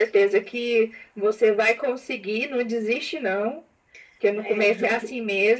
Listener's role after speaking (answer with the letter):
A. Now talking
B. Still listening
B